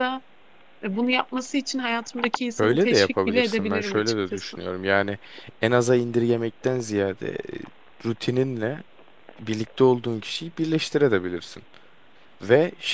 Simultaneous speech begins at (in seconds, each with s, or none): 2.6 s